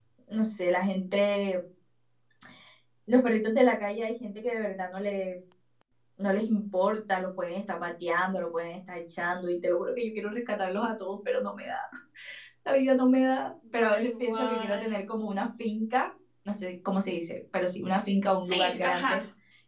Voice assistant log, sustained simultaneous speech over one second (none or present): present